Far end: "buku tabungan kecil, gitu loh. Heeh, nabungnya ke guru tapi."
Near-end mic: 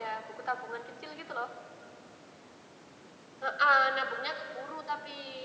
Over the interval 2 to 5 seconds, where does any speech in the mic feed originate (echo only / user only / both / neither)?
echo only